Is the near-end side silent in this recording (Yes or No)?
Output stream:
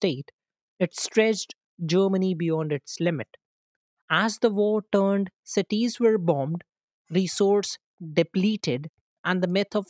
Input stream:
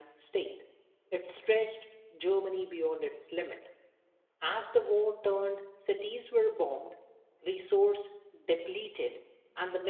Yes